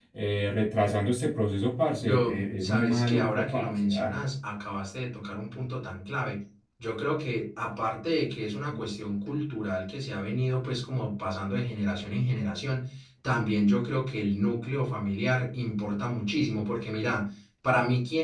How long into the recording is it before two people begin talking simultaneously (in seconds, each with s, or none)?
2.0 s